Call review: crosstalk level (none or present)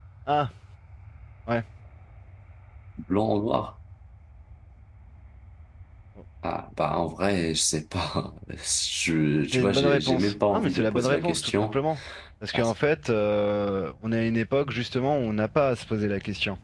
present